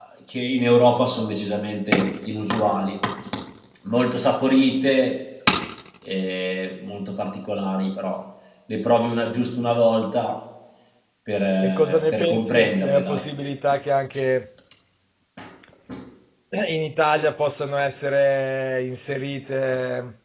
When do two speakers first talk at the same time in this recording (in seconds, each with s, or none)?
11.6 s